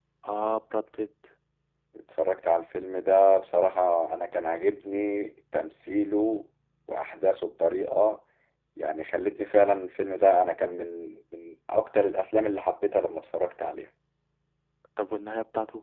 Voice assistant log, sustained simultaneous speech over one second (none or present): none